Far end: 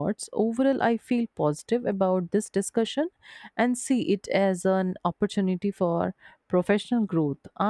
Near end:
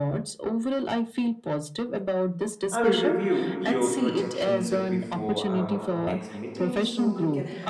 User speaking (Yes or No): Yes